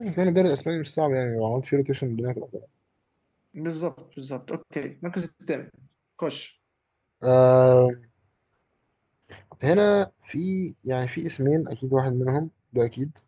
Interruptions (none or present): none